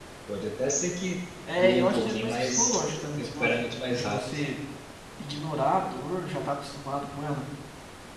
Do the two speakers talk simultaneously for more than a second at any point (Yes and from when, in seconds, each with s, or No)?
Yes, from 1.5 s